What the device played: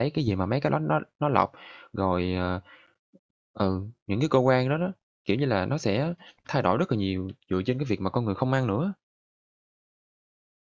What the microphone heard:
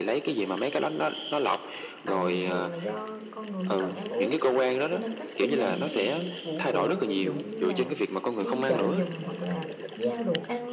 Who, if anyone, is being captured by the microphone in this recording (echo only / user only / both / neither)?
both